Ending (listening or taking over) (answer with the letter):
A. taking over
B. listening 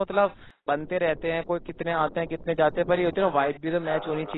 A